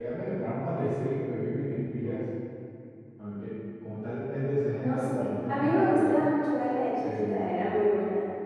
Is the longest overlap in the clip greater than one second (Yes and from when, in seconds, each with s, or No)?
Yes, from 4.8 s